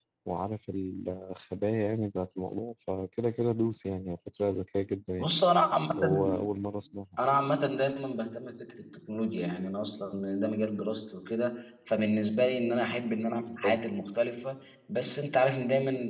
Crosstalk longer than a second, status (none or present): none